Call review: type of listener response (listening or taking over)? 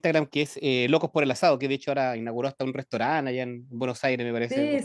taking over